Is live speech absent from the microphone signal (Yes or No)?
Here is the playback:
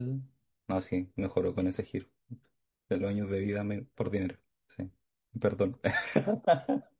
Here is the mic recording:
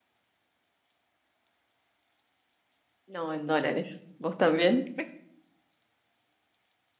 No